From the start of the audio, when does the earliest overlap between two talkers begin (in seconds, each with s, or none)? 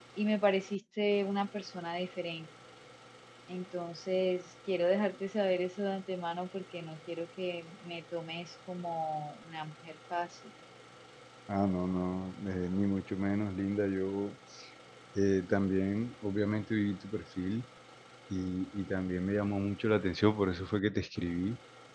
none